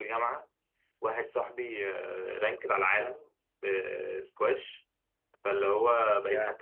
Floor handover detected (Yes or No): No